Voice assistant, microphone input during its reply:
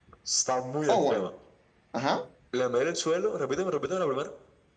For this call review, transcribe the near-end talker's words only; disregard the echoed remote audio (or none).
Oh, bueno, ajá.